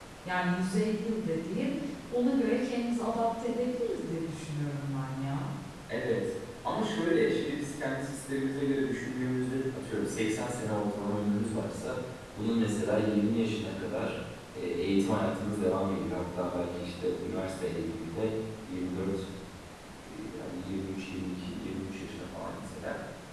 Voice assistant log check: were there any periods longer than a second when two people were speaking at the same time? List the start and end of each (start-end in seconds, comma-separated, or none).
none